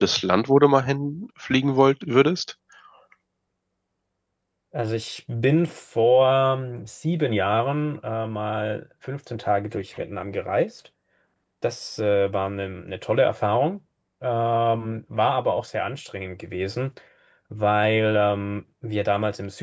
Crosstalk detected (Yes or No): No